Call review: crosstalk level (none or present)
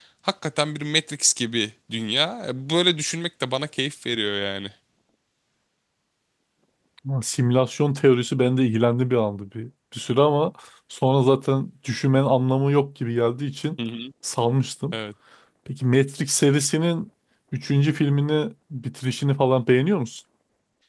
none